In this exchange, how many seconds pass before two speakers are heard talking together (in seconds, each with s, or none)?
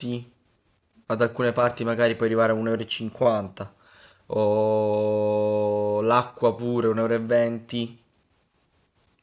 none